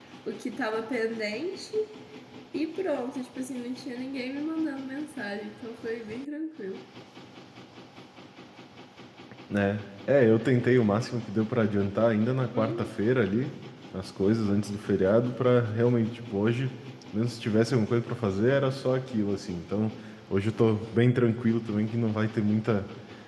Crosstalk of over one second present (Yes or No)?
No